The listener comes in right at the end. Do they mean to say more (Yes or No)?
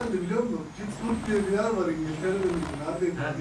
No